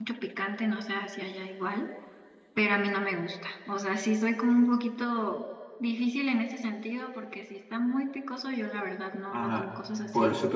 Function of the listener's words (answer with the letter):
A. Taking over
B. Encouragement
A